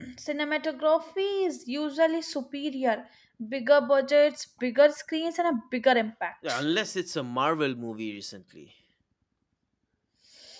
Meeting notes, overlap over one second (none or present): none